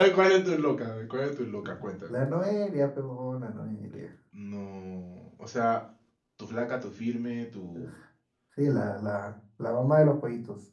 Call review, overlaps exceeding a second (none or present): none